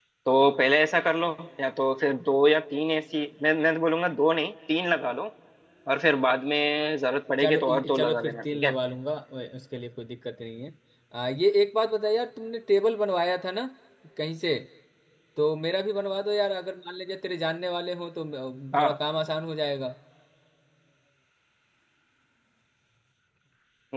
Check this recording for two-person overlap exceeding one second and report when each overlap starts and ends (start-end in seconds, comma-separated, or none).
7.4-8.7